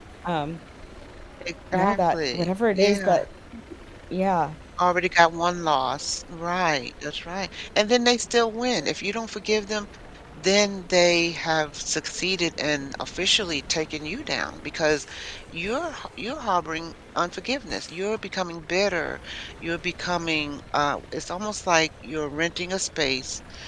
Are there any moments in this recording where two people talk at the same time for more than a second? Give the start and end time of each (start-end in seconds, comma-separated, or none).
1.7-3.2